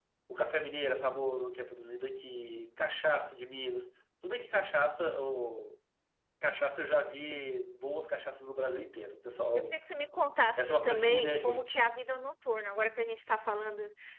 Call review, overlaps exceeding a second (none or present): present